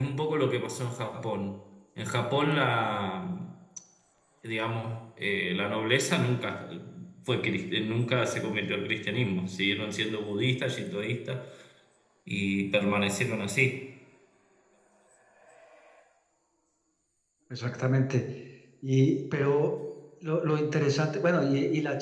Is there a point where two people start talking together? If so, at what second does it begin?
none

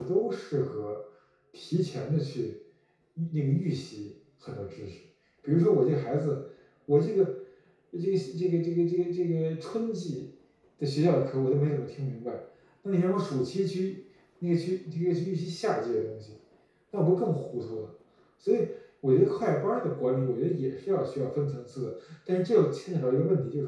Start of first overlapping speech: none

